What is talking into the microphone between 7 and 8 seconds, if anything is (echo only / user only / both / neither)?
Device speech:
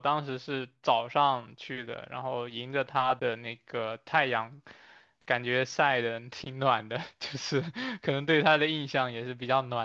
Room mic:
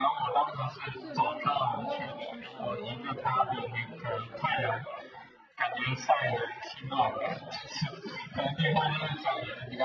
echo only